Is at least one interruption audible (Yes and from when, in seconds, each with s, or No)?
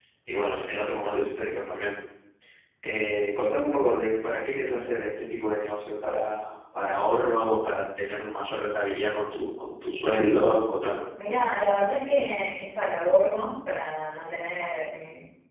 No